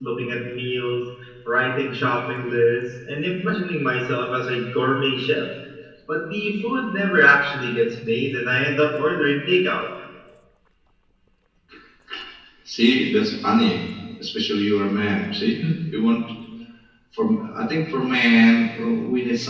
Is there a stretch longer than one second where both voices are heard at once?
No

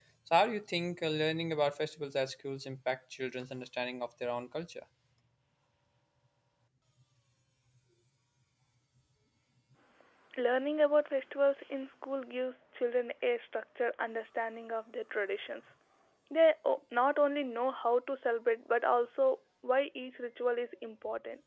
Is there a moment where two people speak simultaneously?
No

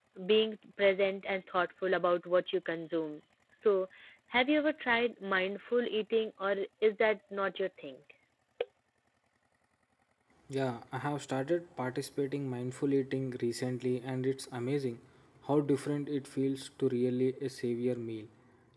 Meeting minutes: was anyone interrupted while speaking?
No

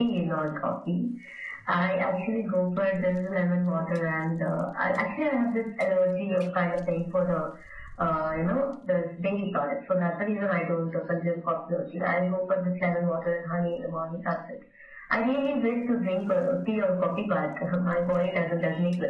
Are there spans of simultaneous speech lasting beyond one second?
No

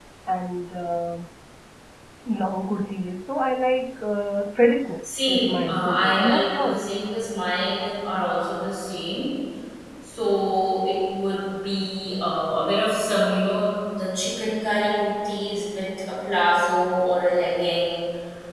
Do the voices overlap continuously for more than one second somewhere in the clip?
Yes, from 5.0 s

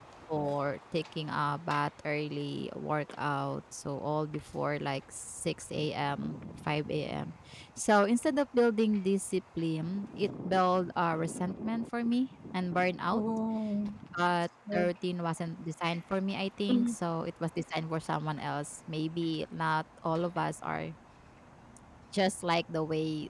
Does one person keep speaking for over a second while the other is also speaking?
No

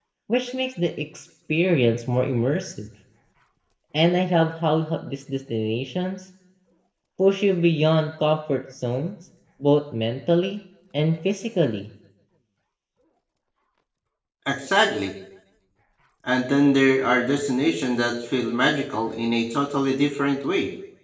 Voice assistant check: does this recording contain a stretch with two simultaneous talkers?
No

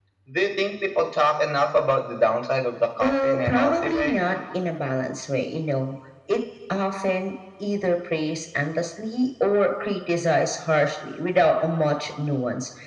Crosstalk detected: Yes, from 3.0 s

